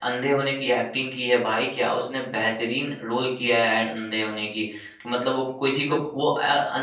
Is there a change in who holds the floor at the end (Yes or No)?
No